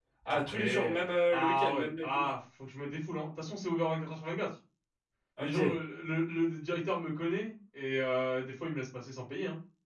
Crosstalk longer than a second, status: present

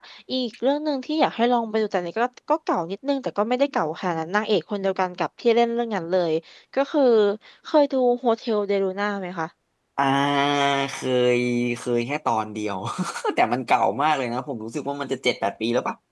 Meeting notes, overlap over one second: none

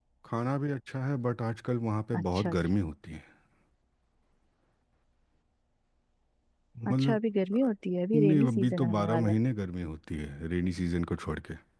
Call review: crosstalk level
present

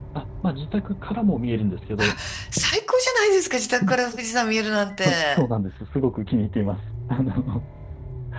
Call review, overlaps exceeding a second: none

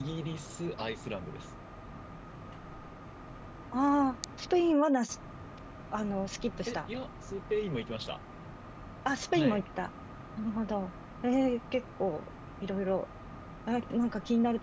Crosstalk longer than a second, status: none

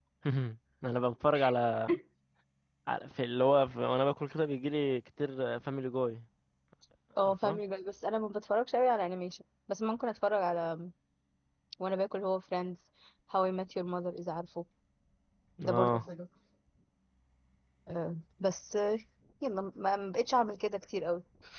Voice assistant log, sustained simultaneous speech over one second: none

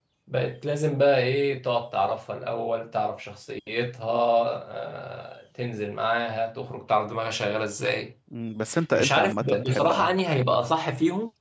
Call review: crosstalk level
present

